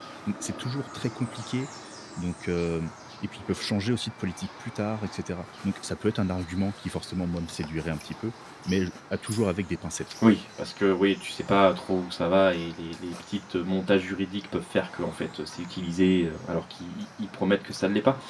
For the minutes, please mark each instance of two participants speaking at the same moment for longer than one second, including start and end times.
none

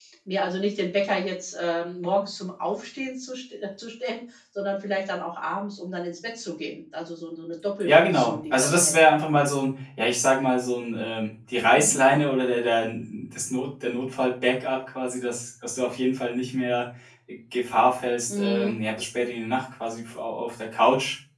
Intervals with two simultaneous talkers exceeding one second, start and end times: 7.8-9.1

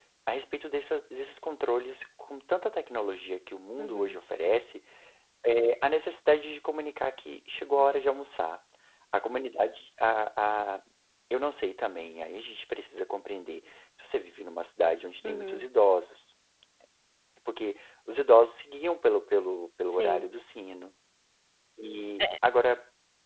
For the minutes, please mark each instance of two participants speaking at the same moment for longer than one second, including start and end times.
none

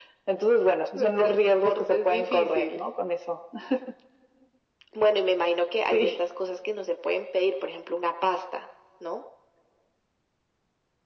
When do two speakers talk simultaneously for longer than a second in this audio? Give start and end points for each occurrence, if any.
0.9-2.8

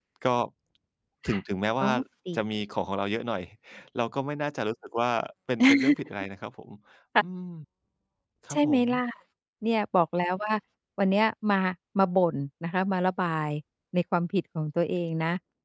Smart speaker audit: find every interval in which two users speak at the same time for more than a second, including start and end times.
none

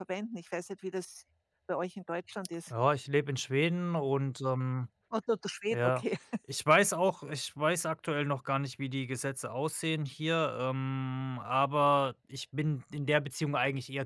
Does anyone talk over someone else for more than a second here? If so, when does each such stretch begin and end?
none

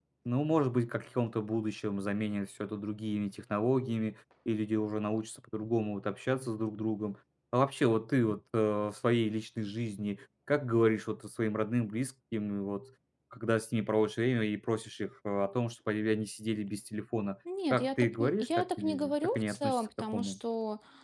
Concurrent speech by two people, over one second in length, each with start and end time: 17.7-20.4

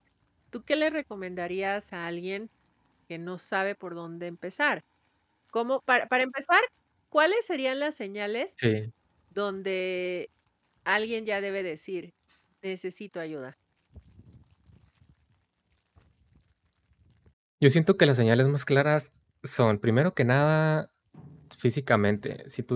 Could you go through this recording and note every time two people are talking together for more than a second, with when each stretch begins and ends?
none

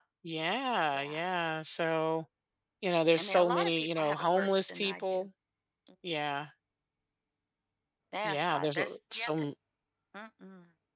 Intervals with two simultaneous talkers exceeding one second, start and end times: 3.2-5.3, 8.2-9.5

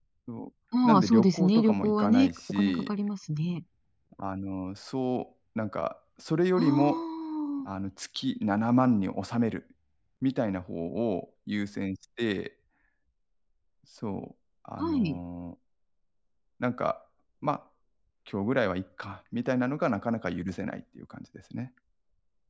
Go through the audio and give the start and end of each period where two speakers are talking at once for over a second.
0.8-2.9

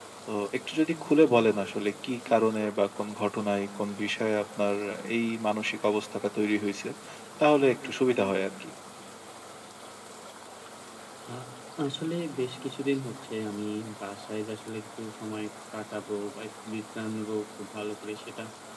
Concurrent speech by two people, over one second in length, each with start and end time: none

